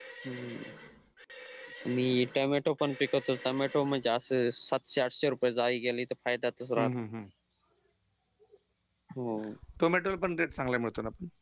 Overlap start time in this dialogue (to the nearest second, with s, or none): none